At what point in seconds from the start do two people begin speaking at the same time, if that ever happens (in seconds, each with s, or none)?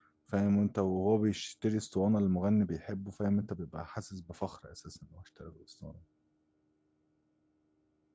none